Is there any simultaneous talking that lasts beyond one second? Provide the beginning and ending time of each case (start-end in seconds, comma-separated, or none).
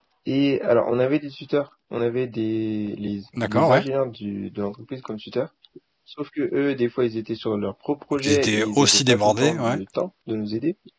8.1-9.8